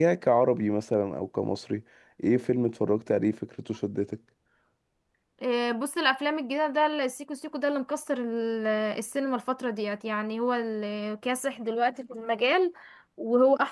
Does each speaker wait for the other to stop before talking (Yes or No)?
Yes